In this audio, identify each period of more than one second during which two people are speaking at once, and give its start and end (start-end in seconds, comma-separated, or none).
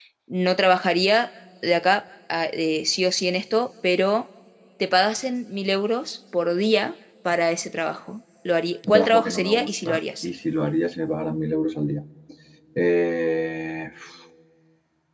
8.9-10.2